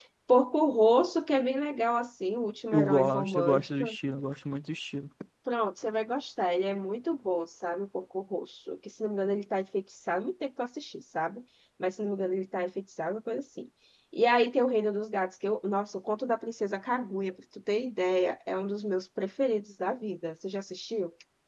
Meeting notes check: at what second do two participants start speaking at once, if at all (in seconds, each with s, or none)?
2.7 s